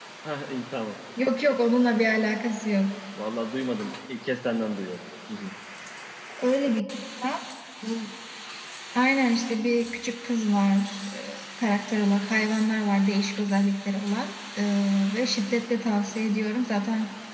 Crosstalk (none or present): none